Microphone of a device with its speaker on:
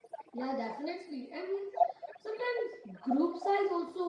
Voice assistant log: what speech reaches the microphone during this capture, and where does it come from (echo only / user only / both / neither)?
both